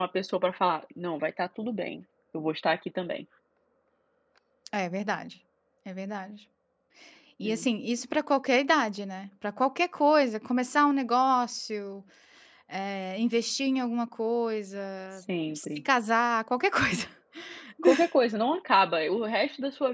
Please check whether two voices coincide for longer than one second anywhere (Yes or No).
No